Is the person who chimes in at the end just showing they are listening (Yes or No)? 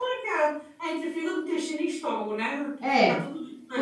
No